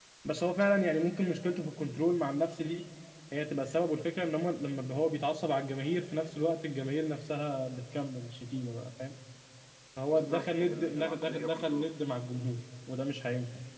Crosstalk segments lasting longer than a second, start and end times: 10.1-11.8

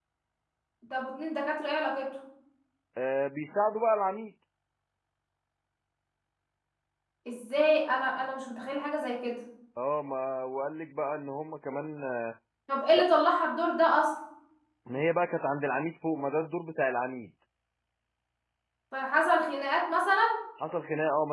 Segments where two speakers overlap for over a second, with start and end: none

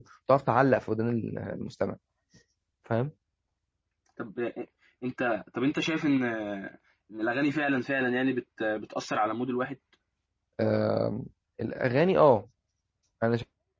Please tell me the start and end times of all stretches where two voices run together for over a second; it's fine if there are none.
none

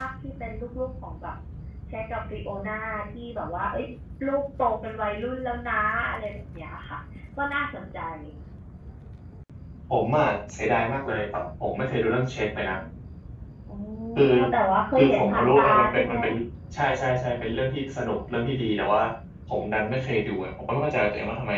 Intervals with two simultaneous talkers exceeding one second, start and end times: 15.0-16.2

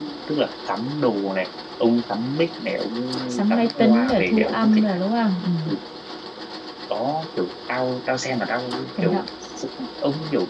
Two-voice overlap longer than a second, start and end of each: 3.3-5.0

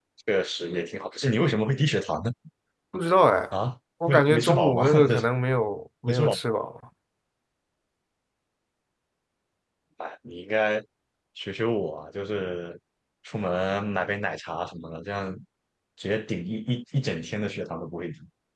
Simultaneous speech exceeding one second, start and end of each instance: 4.1-5.3

